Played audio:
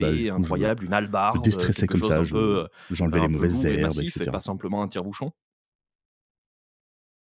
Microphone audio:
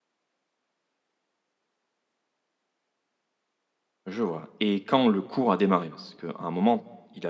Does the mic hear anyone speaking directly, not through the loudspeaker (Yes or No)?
Yes